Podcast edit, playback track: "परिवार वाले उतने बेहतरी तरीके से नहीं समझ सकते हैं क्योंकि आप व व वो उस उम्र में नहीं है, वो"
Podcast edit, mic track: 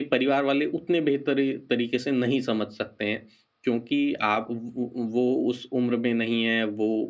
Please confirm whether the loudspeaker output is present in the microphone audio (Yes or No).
Yes